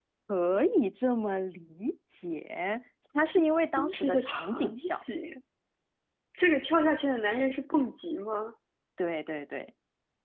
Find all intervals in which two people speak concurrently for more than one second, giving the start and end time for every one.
3.8-5.0

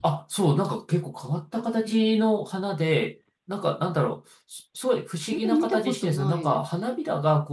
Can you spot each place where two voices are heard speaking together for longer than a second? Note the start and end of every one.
5.3-6.7

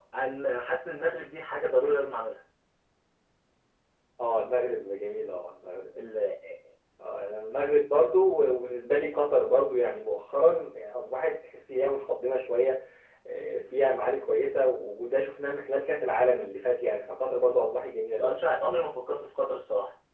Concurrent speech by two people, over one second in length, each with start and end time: none

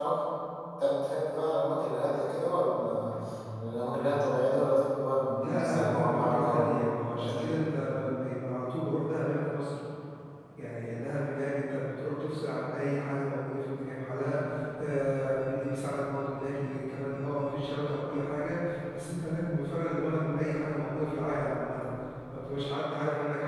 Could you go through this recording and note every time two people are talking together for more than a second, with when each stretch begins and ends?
5.4-7.6

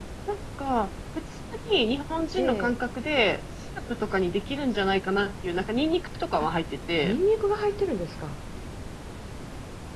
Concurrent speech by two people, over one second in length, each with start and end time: none

